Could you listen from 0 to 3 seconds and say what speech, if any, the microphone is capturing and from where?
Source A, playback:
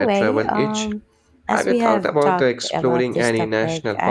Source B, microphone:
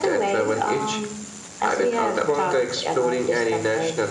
echo only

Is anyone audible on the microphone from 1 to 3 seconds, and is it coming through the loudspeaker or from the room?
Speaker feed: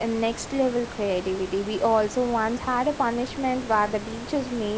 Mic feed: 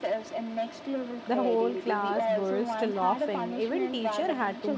both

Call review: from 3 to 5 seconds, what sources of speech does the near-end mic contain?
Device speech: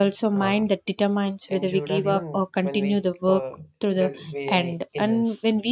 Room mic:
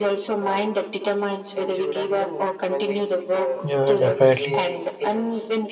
both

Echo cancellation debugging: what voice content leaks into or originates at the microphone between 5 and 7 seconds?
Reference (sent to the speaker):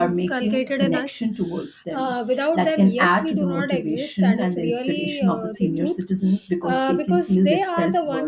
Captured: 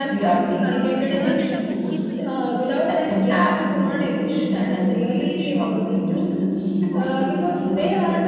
echo only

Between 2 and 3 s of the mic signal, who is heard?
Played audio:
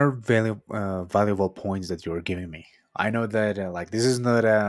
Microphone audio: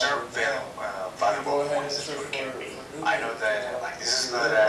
both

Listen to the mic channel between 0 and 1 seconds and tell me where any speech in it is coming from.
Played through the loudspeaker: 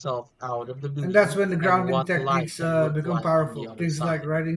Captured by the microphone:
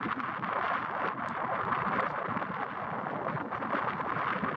neither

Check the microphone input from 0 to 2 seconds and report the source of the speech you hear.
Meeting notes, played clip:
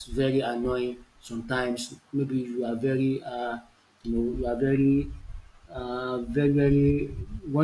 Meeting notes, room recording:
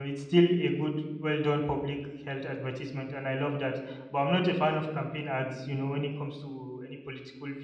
user only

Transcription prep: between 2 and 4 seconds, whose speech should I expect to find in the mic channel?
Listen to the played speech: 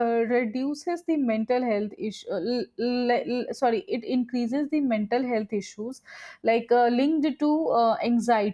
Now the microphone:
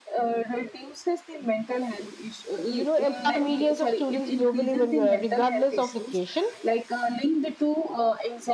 both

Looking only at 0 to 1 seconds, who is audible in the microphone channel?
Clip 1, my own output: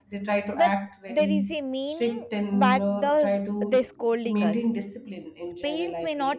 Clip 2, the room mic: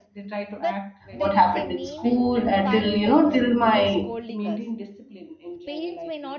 echo only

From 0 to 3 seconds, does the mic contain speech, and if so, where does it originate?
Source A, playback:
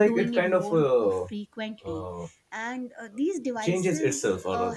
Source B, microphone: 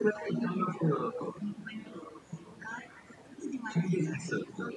echo only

